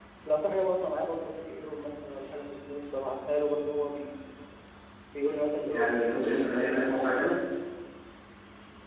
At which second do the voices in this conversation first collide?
6 s

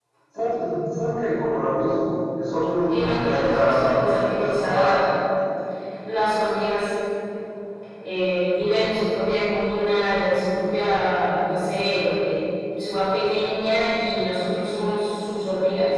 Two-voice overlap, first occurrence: 3 s

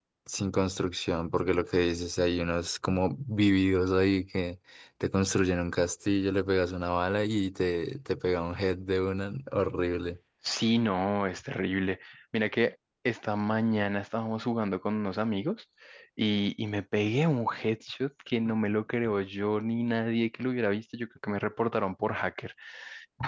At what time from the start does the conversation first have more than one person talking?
none

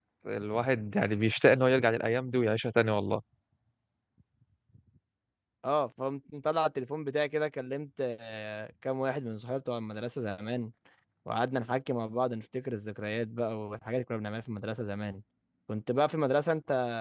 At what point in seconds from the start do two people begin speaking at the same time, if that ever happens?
none

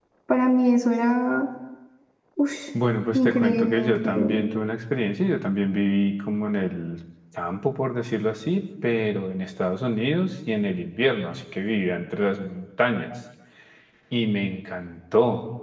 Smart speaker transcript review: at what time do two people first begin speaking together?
3 s

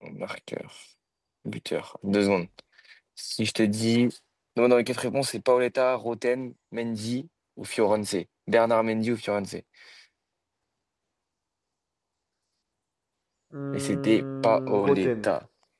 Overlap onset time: 14 s

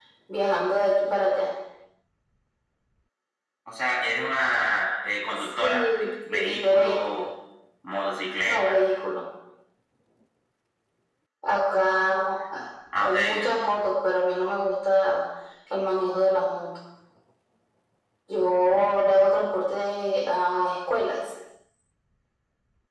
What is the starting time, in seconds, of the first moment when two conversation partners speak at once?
6 s

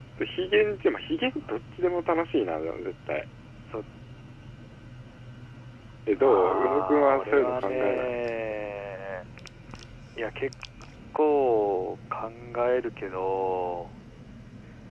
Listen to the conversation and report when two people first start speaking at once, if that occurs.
6 s

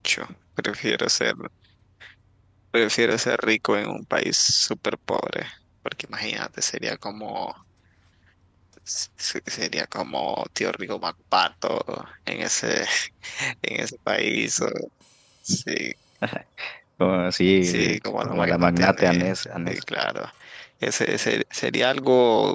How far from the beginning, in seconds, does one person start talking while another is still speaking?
18 s

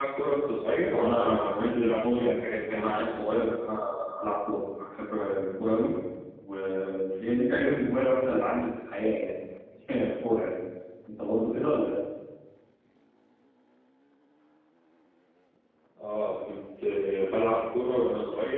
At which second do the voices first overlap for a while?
1 s

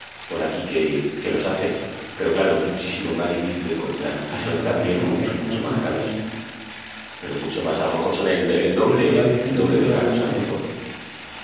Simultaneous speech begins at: 4 s

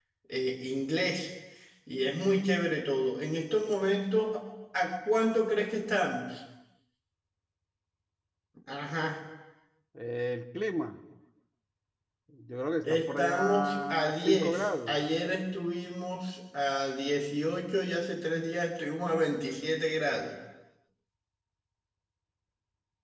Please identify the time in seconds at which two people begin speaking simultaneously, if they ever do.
13 s

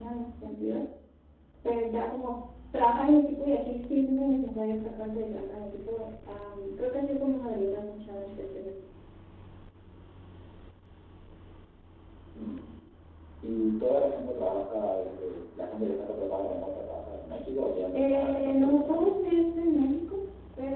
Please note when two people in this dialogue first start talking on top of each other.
18 s

